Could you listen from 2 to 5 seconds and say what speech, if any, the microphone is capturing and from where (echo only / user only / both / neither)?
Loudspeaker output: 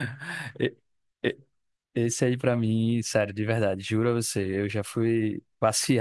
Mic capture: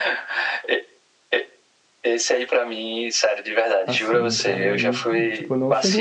both